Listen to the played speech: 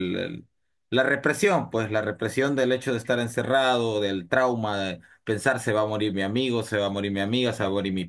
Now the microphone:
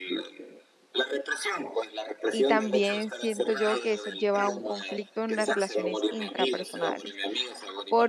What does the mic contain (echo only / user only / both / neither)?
both